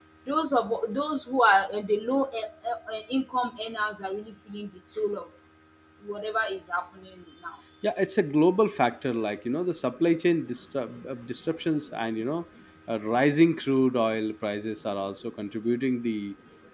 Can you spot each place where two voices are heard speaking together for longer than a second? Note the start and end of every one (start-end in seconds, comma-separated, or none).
none